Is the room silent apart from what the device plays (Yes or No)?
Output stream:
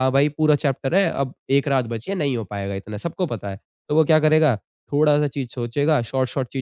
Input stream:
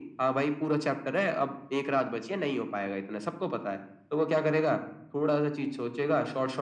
Yes